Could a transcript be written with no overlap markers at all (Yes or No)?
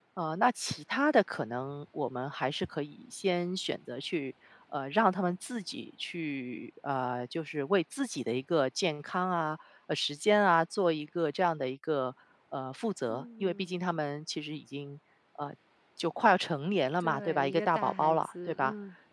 No